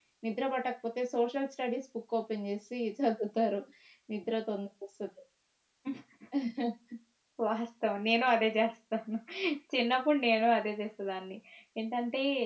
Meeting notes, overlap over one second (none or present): none